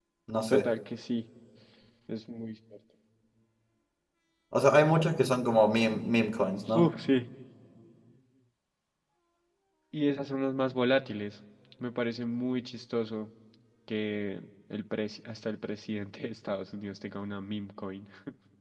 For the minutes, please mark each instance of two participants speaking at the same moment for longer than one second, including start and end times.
none

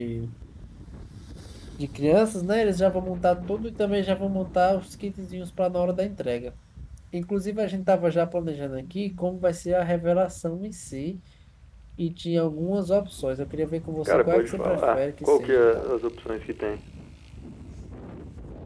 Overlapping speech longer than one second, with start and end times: 14.1-15.9

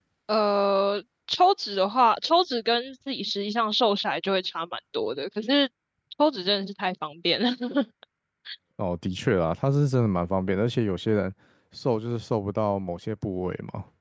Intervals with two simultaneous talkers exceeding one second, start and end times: none

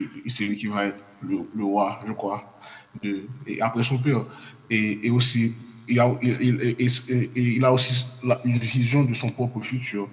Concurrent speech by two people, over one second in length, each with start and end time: none

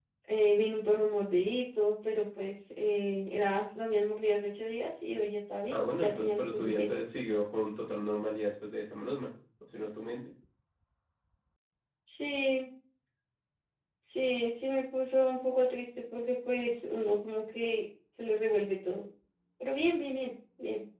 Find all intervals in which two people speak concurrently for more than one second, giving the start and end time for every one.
5.7-6.9

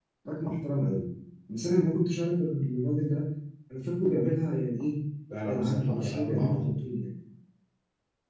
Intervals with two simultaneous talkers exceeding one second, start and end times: 5.4-6.7

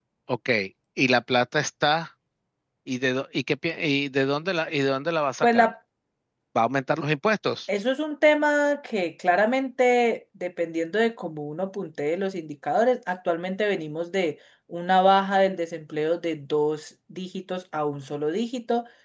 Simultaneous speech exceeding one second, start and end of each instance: none

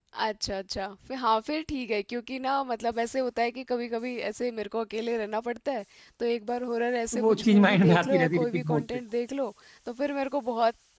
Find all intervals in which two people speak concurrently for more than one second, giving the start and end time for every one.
7.1-8.8

